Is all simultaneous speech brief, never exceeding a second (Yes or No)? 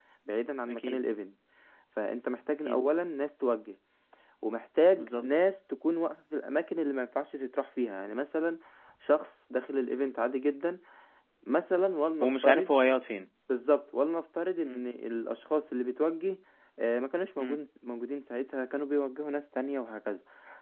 Yes